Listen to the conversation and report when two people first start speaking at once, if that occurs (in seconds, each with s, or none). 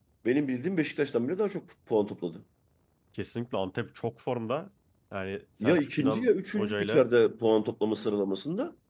5.6 s